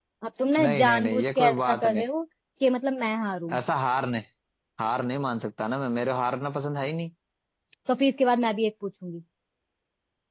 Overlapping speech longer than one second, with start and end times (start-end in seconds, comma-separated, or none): 0.6-2.0